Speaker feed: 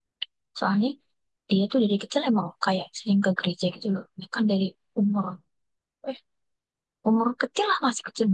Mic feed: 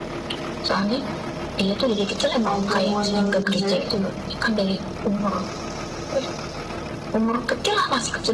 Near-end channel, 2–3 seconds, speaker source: both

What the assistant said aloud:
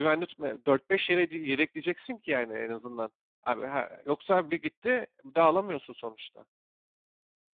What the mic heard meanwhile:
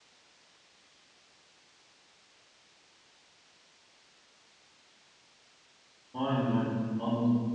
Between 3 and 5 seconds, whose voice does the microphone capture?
neither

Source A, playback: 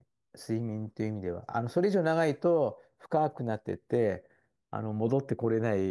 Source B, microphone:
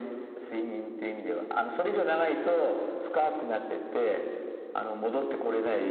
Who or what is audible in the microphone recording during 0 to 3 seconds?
echo only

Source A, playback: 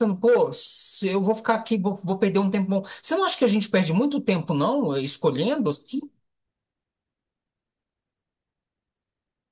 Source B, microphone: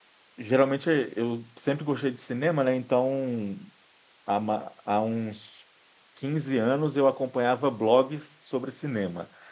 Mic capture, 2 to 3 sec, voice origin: user only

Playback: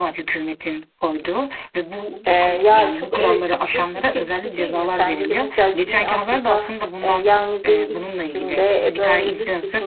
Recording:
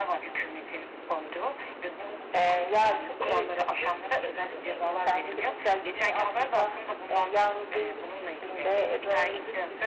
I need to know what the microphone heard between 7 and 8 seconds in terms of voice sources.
echo only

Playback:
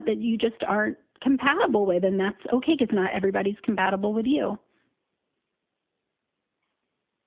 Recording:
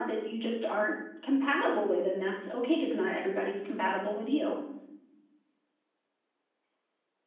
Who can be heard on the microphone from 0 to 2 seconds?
echo only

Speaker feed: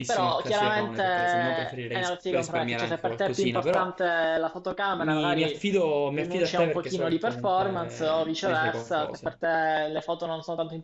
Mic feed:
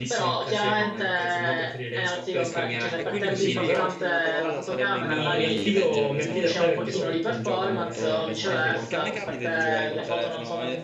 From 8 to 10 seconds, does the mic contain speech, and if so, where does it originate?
both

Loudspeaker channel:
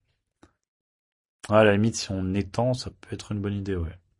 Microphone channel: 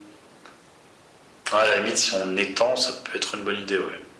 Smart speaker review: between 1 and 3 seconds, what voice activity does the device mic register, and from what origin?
echo only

